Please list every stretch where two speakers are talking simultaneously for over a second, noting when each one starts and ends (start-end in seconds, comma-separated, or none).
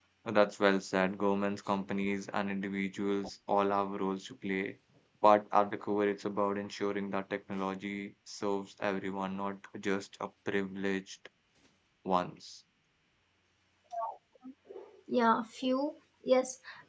none